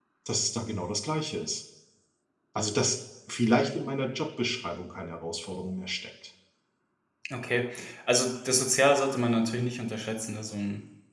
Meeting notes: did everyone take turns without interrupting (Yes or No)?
Yes